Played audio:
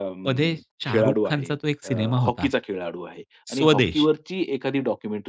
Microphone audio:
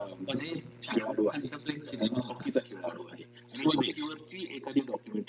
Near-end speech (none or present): none